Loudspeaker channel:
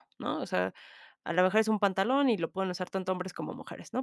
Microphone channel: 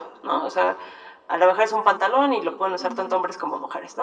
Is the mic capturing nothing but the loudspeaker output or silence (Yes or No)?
No